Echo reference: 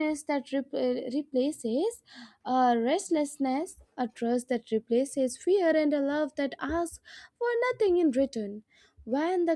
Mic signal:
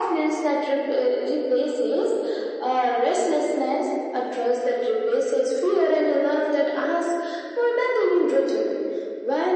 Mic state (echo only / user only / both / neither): echo only